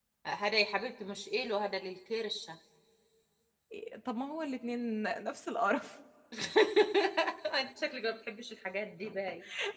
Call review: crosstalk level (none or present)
none